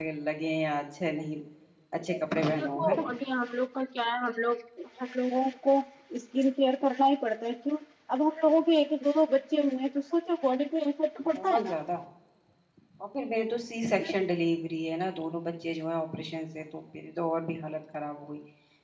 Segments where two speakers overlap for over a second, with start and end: none

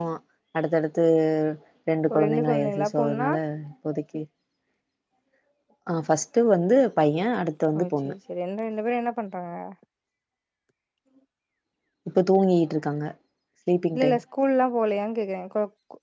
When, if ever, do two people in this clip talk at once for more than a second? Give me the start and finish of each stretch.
2.1-3.3

